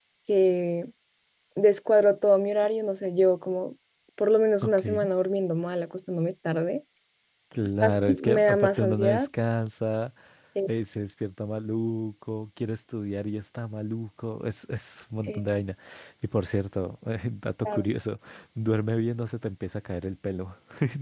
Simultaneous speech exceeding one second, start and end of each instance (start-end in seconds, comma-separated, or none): 7.8-9.3